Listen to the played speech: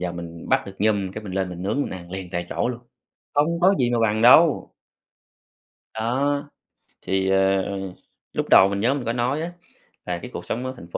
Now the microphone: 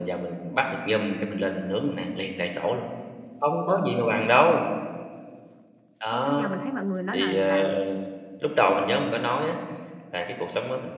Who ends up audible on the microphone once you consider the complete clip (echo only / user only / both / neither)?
both